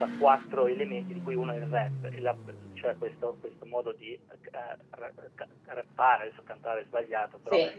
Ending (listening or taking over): listening